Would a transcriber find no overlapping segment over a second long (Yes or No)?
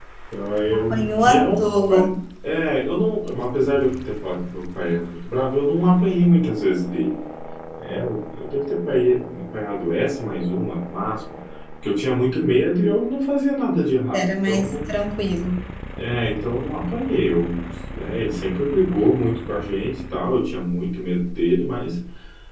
No